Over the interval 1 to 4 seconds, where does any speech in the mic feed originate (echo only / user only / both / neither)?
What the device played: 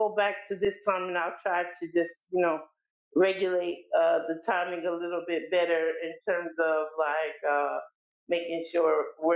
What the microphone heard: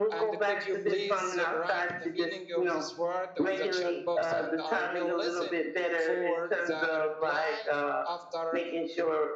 both